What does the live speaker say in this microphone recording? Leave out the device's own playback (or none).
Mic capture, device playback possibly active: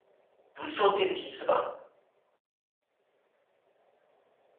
不坐电梯是吧？